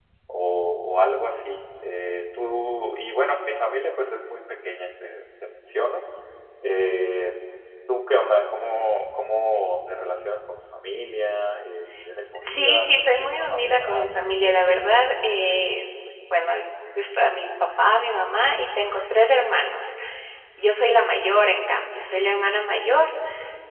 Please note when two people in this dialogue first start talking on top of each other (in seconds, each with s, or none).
12.3 s